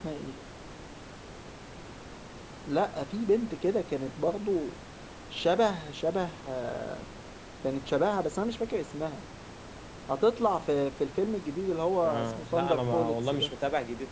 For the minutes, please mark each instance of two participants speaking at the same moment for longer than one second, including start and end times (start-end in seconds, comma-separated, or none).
12.0-13.5